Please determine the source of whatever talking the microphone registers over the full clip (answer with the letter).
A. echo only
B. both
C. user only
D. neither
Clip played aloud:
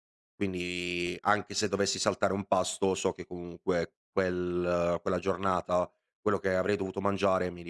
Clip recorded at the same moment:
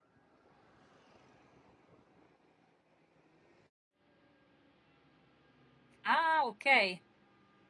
C